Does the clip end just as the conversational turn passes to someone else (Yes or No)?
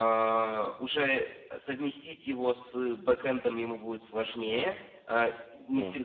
No